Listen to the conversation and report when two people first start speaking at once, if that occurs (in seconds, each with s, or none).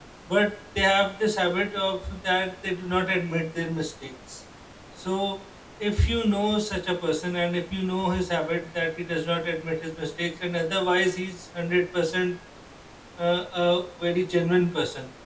none